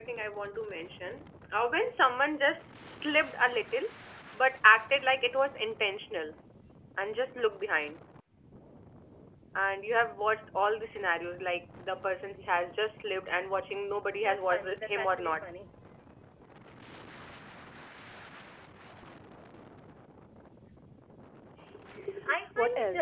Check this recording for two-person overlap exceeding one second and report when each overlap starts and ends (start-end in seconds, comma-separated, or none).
14.2-15.4